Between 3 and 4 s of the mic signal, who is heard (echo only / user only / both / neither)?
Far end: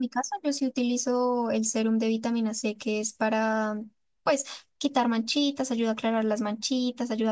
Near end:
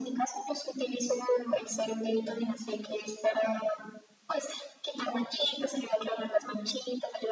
echo only